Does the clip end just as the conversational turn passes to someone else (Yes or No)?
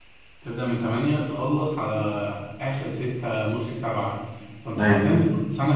No